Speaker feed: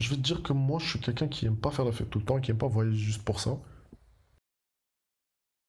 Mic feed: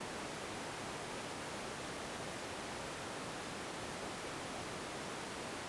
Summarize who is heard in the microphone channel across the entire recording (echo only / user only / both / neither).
neither